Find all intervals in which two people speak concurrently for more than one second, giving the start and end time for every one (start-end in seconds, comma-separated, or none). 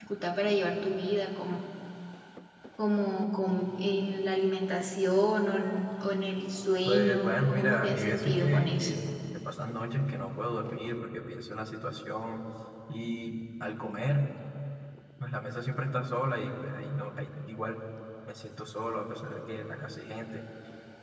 6.8-8.9